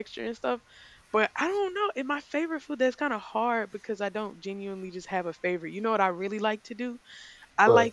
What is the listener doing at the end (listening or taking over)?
listening